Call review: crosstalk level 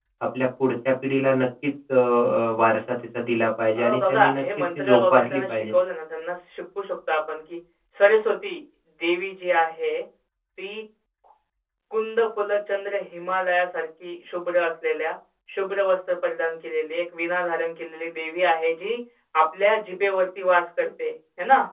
present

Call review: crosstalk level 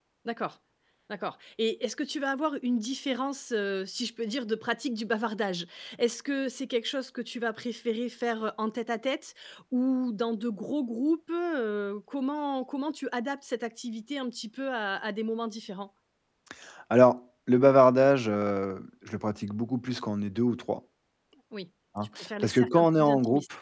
present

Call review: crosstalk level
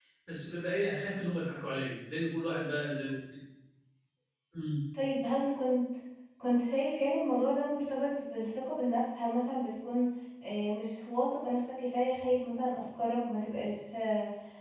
none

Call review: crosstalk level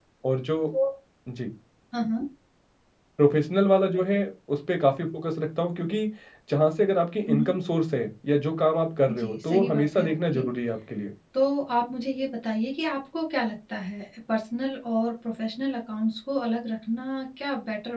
present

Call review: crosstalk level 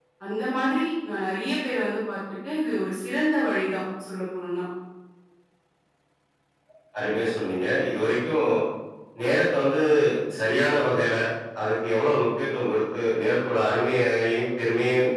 none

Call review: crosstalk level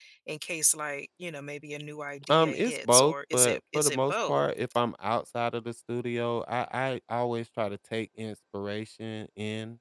present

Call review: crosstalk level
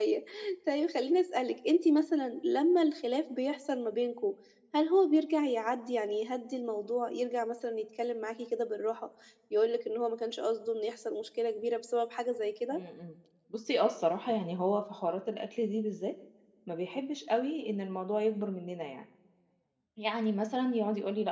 none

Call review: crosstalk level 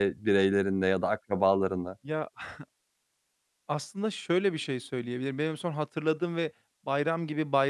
none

